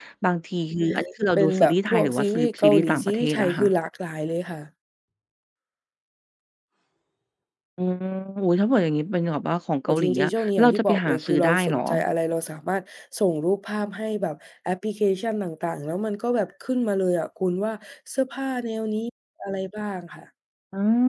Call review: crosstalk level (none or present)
present